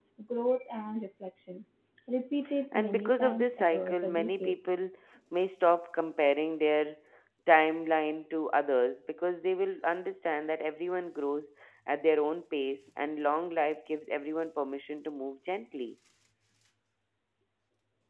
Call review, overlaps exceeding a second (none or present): present